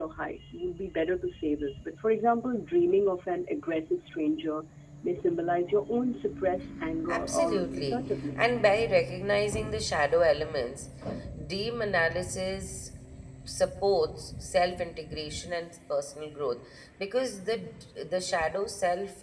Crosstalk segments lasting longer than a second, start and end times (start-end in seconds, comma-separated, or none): 7.1-8.6